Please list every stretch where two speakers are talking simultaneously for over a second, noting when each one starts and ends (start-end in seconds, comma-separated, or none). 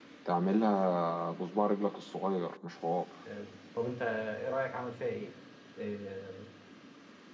none